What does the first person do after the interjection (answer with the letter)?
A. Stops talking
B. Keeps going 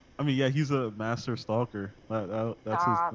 A